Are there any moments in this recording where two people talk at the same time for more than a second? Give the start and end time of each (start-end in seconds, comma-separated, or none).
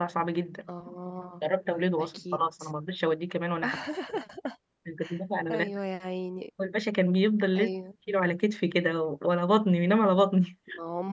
none